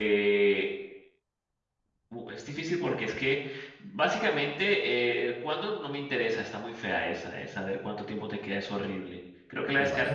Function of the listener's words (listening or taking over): listening